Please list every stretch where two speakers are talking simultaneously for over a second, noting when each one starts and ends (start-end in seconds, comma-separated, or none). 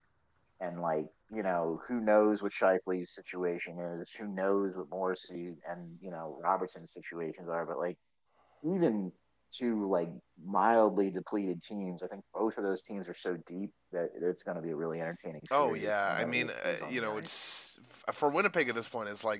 15.5-17.3